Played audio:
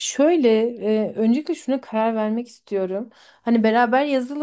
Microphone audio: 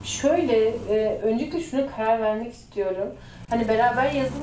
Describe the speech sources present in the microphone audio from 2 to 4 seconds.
echo only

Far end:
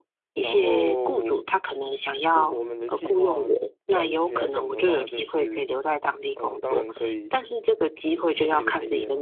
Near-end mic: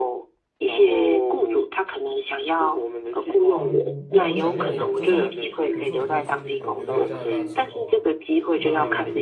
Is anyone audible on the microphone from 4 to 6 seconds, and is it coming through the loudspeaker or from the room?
both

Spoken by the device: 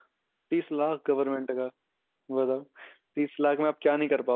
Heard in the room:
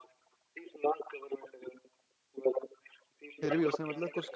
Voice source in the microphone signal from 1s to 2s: echo only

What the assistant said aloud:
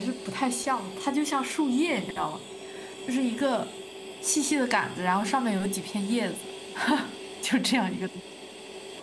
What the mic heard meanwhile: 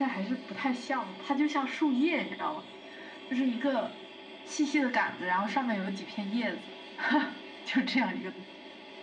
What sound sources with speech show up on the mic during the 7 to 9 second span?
echo only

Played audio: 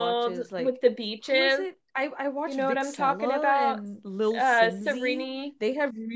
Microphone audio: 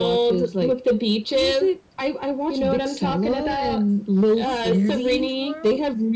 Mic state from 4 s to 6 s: both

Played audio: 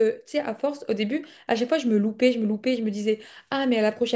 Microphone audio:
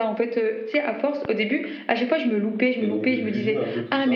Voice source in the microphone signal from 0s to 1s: echo only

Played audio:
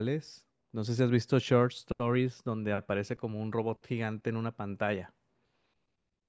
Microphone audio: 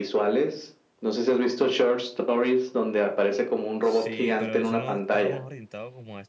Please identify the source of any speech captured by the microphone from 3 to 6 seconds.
both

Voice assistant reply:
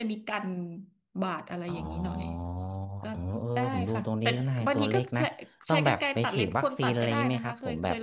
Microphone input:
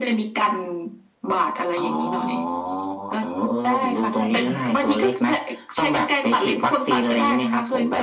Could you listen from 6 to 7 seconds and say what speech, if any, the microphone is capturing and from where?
echo only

